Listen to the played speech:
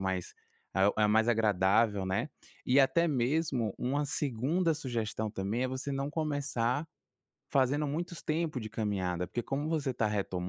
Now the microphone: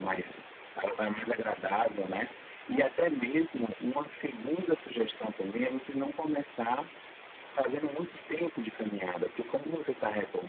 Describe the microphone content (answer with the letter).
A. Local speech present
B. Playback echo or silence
B